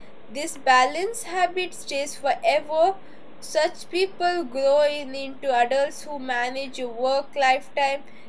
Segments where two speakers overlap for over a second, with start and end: none

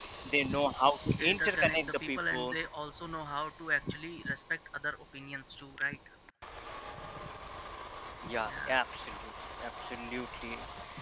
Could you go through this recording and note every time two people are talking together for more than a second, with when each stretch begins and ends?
1.2-2.5

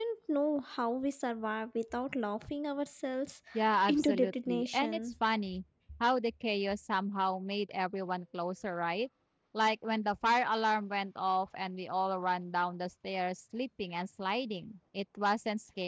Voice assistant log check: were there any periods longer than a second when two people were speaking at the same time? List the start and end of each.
3.9-5.1

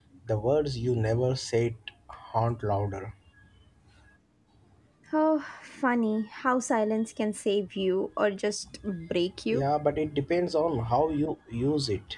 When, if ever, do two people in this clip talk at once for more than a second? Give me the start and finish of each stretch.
none

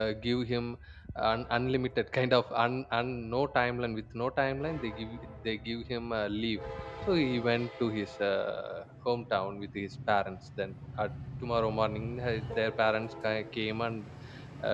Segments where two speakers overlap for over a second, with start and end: none

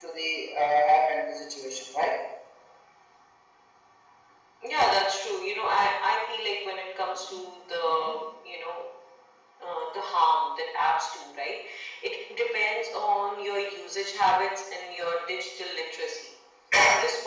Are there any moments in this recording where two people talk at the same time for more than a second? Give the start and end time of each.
none

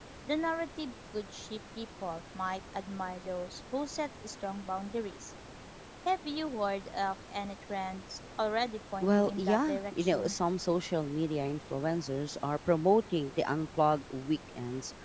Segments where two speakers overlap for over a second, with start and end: 9.0-10.3

